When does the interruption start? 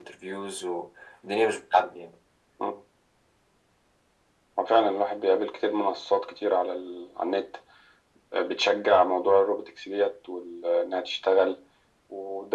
none

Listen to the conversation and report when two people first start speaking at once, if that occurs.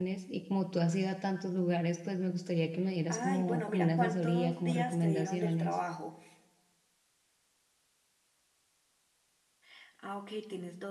3.1 s

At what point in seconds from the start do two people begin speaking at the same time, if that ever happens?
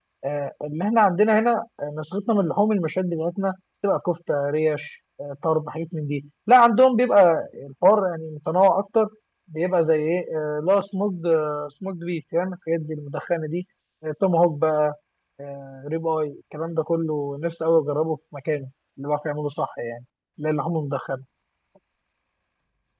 none

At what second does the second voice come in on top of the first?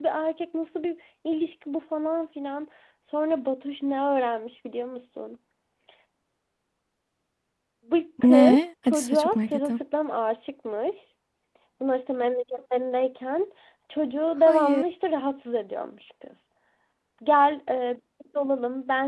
8.2 s

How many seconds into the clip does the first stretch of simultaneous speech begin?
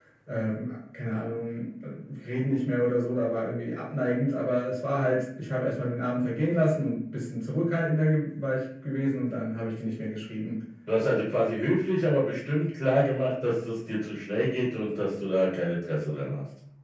none

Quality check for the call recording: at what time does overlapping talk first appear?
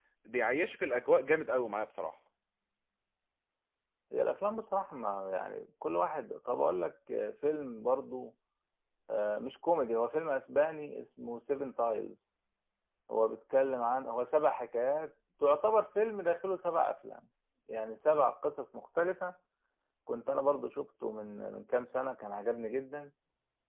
none

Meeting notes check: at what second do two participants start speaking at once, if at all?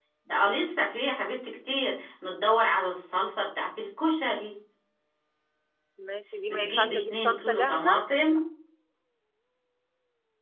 6.5 s

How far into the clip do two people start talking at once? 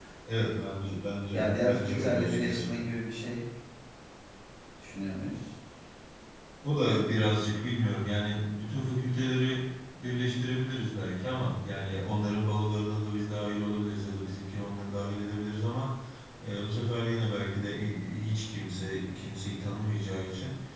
1.3 s

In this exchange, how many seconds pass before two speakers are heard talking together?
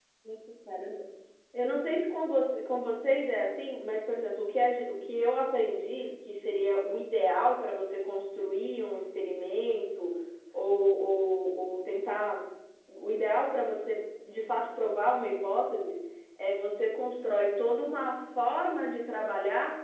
none

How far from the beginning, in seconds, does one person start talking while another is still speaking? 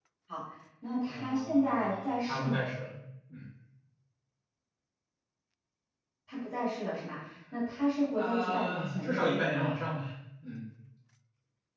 1.0 s

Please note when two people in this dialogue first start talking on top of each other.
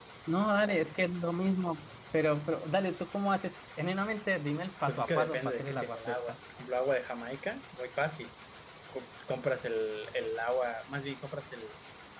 4.9 s

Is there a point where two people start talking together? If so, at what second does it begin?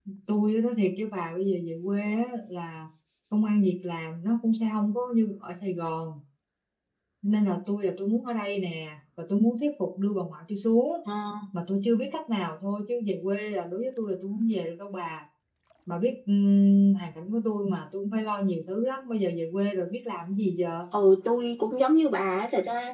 none

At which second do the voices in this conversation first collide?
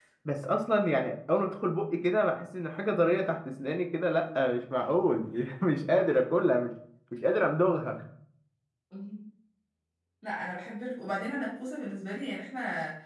none

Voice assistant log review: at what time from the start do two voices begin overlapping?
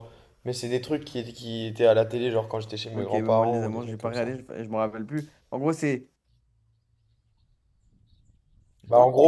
2.9 s

